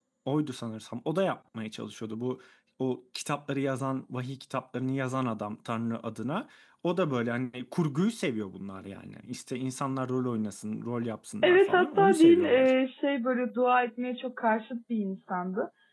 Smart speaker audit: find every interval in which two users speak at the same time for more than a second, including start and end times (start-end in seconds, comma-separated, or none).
11.4-12.7